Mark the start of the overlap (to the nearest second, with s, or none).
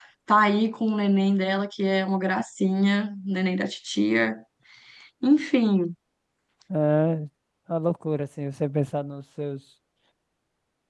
none